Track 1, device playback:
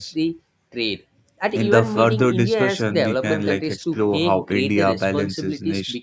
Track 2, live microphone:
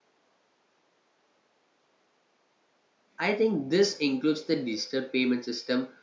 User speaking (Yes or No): Yes